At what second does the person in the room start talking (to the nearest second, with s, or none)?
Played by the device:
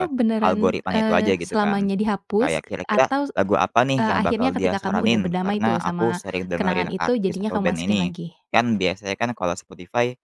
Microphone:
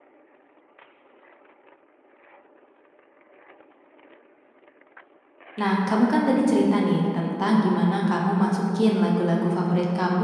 6 s